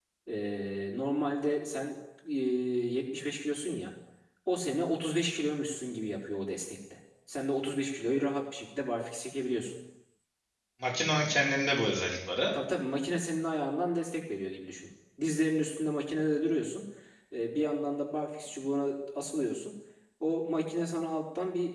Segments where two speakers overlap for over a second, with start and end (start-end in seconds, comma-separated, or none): none